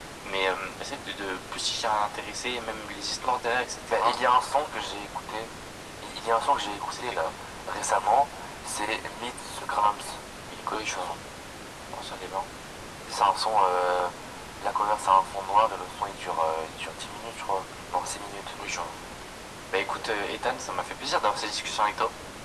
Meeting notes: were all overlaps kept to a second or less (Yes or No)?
Yes